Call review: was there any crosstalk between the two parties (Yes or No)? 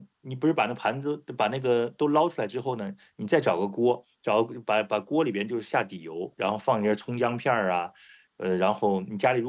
No